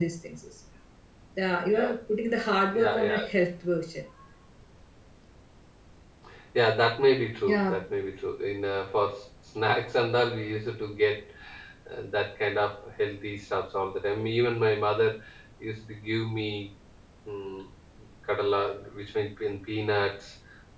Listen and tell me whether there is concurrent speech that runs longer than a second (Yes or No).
No